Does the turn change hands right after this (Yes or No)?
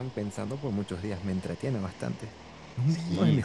Yes